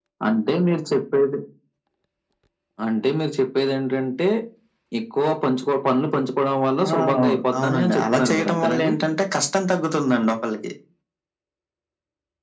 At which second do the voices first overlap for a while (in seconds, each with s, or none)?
6.8 s